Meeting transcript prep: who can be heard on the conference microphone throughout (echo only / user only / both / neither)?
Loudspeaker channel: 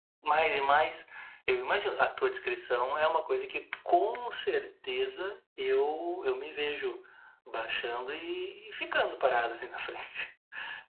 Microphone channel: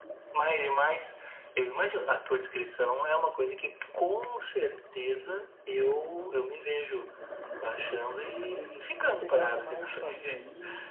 both